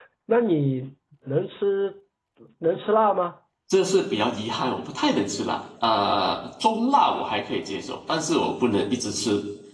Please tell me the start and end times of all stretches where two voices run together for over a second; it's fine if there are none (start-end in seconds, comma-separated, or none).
none